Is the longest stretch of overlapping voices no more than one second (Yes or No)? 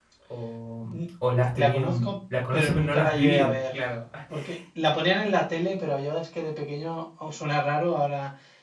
No